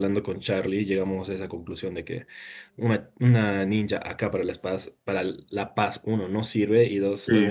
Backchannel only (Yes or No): Yes